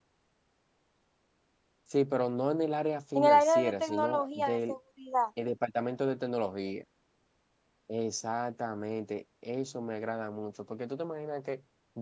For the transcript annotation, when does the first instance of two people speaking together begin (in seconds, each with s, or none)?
3.1 s